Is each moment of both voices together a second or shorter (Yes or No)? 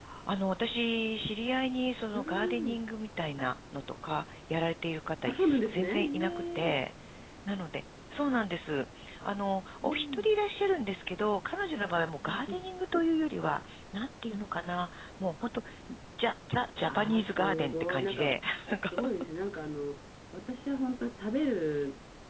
No